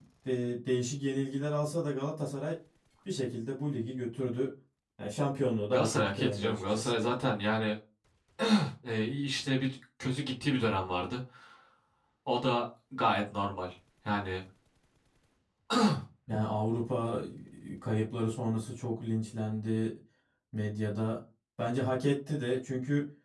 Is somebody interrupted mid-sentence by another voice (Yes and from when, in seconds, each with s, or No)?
Yes, from 5.7 s